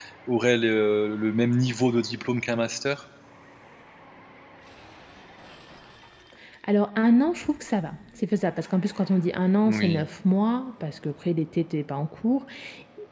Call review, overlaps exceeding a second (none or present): none